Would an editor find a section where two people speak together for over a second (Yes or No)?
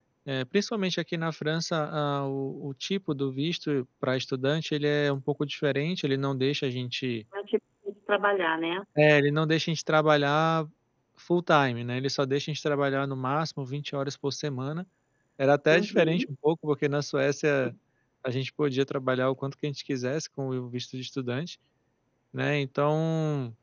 No